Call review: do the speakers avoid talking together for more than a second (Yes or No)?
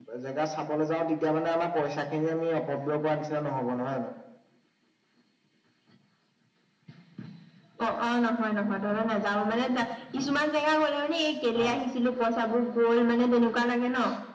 Yes